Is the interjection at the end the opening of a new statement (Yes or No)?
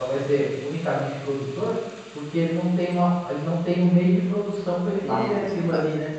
Yes